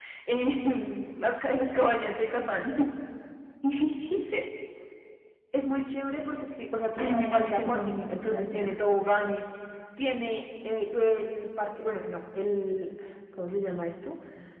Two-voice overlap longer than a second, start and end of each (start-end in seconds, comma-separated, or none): 7.0-8.7